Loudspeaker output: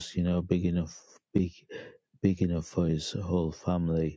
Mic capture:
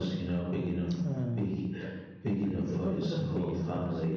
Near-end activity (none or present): present